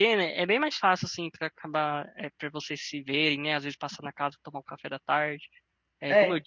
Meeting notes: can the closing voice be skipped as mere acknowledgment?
Yes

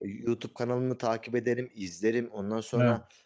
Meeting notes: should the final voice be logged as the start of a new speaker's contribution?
No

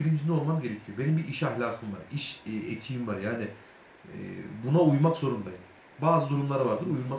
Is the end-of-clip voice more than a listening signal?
No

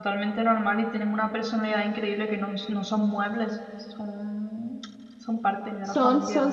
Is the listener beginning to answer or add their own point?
Yes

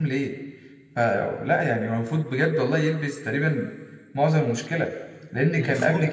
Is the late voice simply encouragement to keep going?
Yes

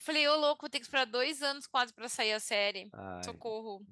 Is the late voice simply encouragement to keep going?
No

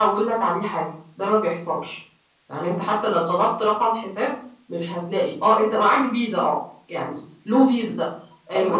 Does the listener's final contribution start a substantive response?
Yes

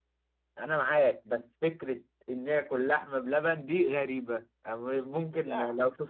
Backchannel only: Yes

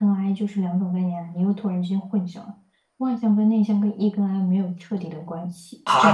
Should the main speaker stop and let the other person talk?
Yes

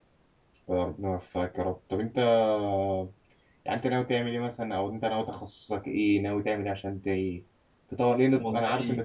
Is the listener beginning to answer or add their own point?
No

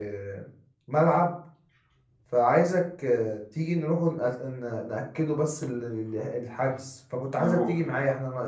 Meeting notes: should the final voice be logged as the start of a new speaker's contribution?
No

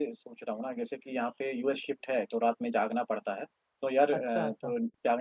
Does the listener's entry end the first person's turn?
No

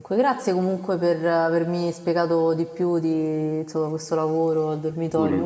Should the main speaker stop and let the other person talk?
No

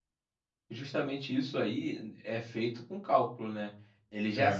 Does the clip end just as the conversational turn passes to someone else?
No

